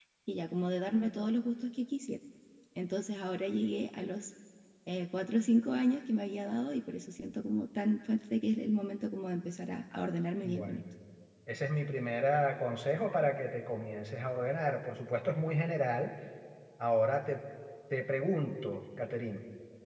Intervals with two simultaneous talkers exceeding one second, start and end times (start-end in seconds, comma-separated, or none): none